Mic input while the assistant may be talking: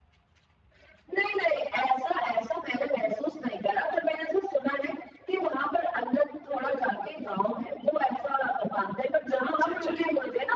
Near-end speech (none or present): present